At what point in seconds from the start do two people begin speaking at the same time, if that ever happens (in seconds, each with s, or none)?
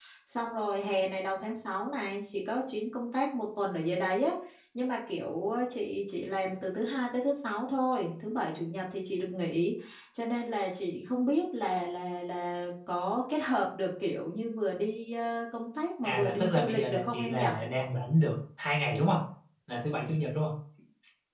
16.0 s